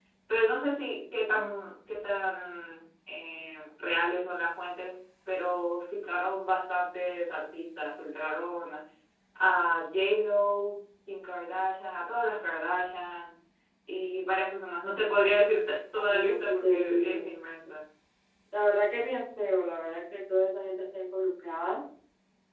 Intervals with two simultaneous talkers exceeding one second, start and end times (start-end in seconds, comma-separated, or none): 15.9-17.3